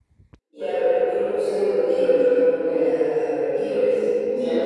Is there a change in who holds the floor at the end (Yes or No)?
Yes